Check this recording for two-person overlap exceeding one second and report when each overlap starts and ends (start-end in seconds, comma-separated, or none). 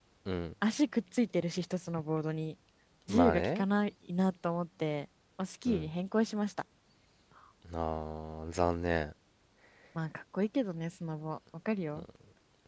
none